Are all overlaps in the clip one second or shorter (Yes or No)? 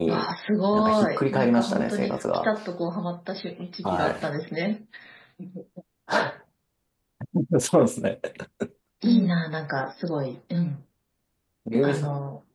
No